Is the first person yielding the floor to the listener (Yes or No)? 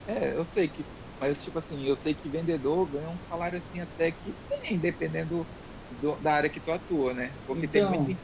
No